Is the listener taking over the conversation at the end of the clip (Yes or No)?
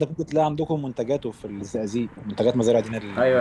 Yes